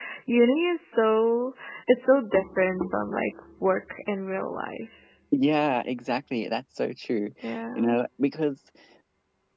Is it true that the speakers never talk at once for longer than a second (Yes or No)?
Yes